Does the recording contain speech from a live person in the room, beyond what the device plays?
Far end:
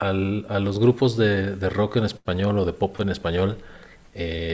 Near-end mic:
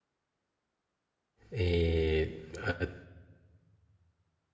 Yes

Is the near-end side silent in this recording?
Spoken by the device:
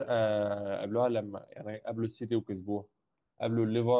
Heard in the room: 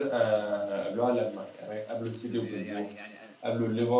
No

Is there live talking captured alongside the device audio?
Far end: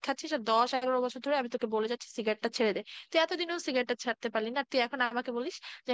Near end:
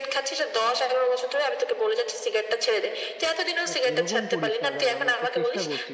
Yes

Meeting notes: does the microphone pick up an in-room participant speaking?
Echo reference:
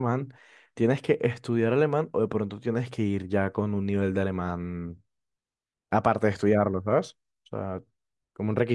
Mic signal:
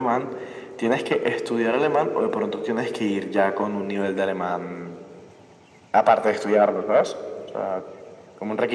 No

